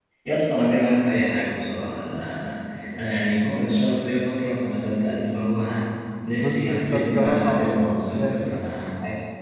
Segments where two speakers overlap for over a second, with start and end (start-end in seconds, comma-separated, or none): 6.4-7.8